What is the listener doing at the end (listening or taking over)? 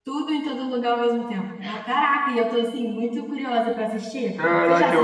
taking over